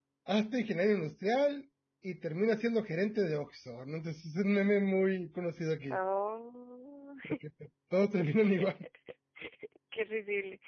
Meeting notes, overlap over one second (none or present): none